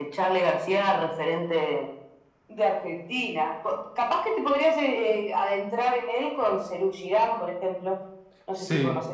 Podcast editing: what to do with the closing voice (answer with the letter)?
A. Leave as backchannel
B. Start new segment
B